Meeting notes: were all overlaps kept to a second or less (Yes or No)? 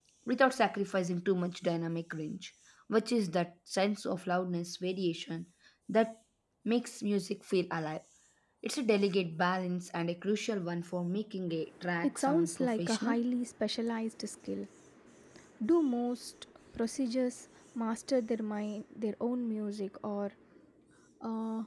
No